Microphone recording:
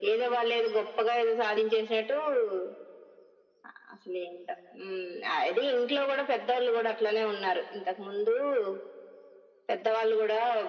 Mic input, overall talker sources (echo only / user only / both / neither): echo only